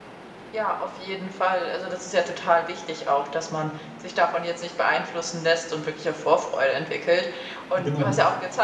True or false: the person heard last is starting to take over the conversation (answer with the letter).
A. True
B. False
B